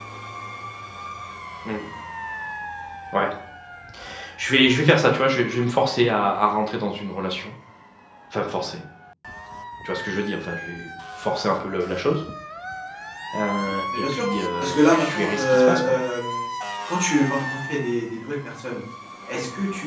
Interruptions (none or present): present